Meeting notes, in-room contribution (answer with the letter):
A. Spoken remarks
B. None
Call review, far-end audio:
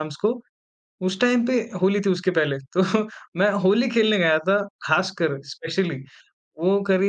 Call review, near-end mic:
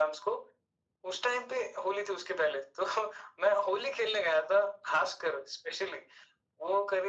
B